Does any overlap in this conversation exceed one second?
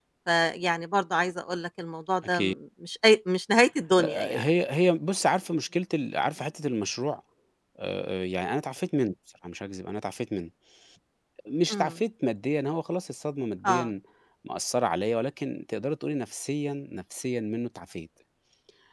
No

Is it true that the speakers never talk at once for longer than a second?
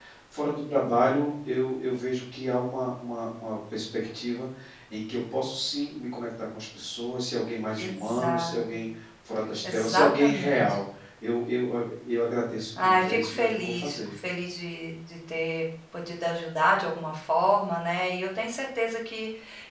No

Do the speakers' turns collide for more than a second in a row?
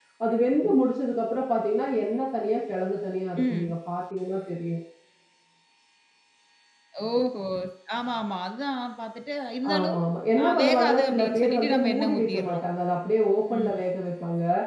Yes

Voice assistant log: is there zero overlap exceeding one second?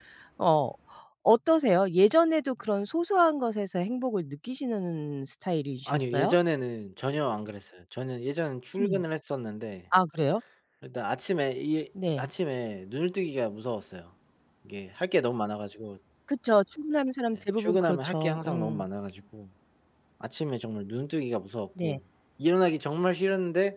No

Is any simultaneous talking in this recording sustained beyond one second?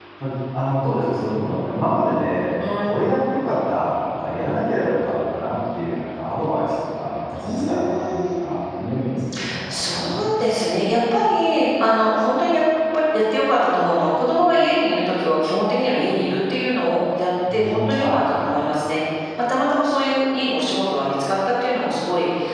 Yes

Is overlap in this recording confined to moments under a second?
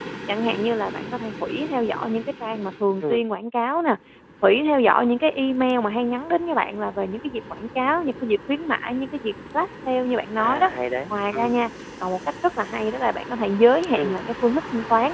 Yes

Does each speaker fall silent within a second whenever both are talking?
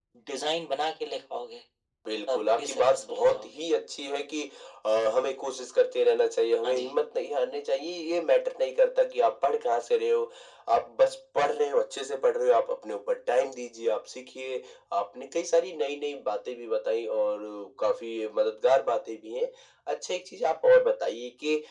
No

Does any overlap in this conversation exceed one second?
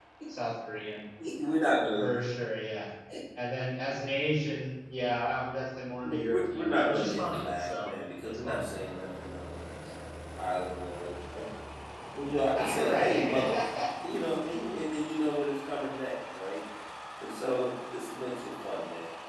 Yes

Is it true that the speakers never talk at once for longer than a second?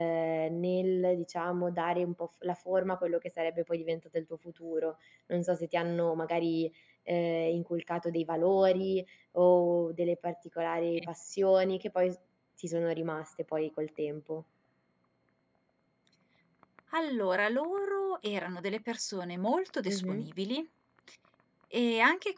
Yes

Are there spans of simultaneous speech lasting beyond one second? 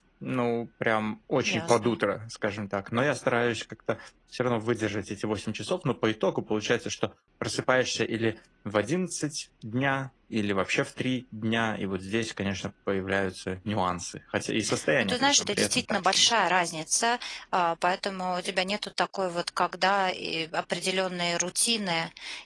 Yes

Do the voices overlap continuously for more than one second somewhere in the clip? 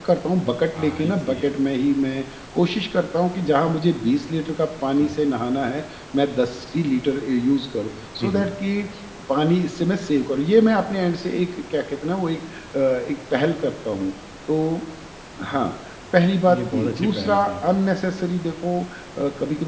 Yes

